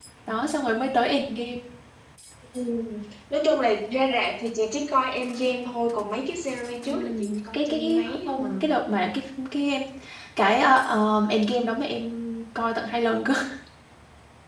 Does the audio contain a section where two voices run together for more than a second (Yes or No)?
Yes